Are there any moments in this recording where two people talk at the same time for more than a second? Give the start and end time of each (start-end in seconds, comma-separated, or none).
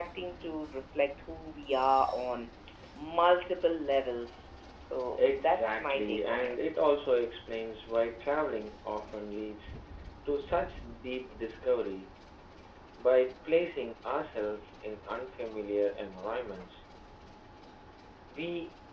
5.2-6.5